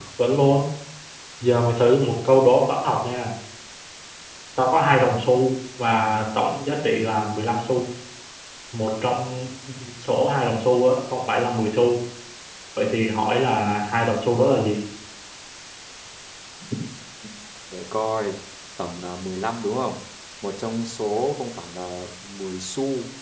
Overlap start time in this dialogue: none

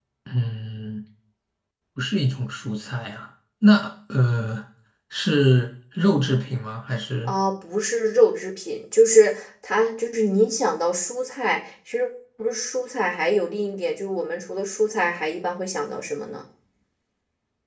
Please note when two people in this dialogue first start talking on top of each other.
none

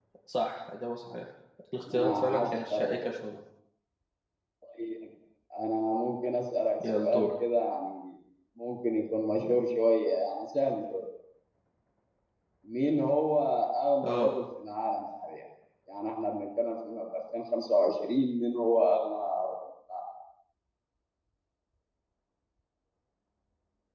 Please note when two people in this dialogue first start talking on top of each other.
1.9 s

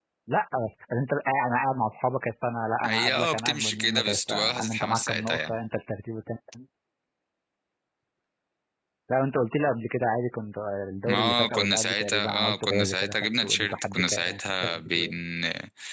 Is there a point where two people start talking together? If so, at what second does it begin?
2.8 s

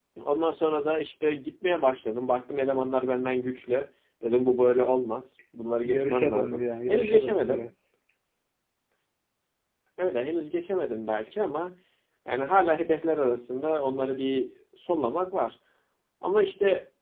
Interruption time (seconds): 5.8 s

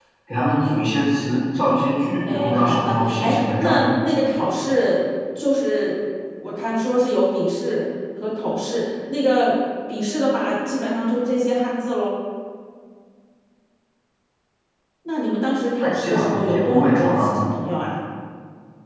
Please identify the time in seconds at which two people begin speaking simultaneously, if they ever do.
2.3 s

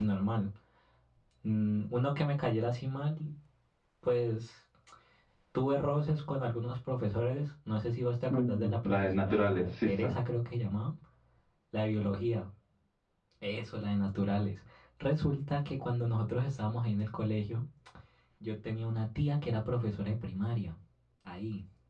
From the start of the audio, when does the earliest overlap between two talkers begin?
8.3 s

